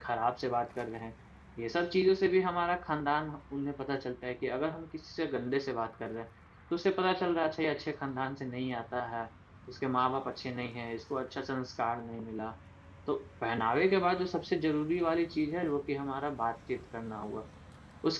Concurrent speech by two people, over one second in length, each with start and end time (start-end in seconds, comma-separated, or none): none